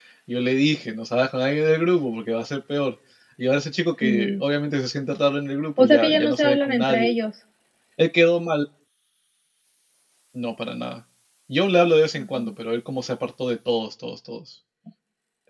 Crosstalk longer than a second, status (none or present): present